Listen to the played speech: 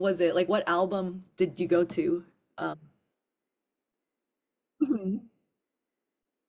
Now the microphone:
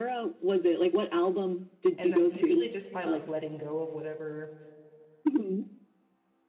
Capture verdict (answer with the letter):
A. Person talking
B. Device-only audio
A